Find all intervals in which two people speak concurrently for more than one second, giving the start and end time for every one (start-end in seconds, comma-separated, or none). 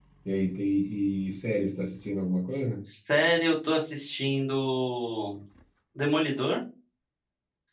none